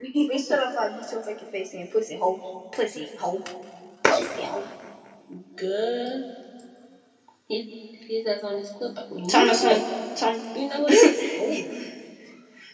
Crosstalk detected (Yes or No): No